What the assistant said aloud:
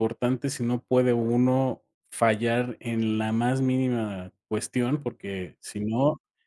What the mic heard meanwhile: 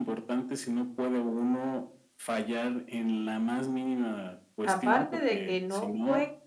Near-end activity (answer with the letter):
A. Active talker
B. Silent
A